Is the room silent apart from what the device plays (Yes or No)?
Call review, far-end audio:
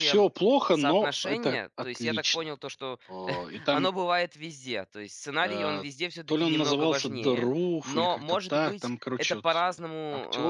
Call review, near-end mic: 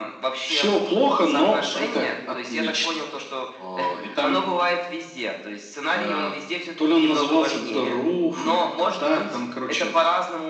Yes